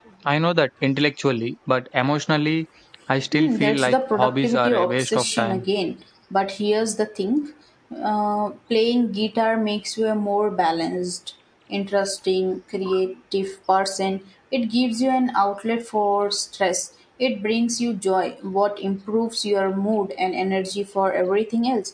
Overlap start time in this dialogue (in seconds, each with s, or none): 3.3 s